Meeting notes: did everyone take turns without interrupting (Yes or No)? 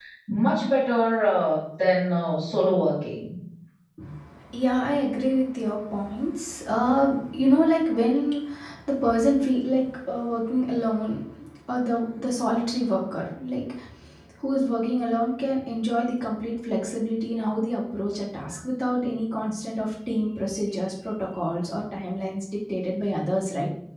Yes